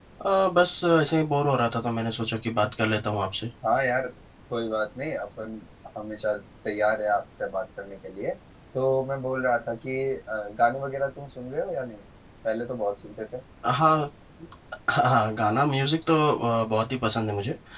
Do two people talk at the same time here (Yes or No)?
No